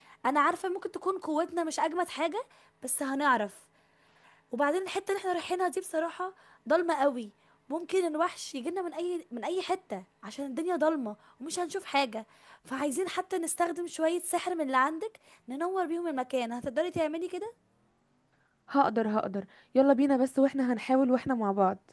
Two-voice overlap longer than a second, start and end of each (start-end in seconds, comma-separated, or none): none